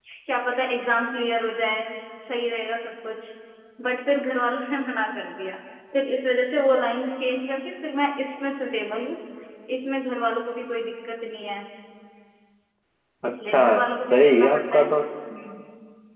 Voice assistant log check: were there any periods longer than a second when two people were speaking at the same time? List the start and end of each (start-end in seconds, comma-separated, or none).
13.2-14.9